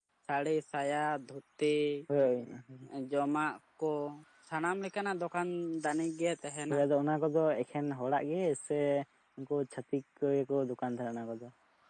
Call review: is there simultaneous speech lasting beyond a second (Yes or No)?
No